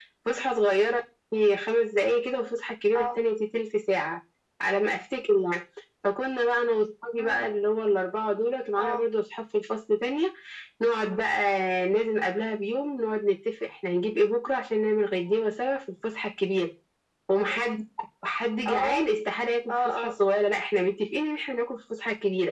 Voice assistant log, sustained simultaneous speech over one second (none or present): none